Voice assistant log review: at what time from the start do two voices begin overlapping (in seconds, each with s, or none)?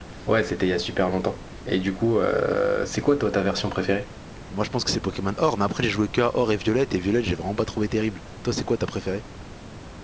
none